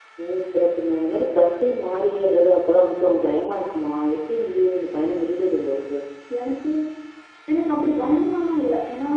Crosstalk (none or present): none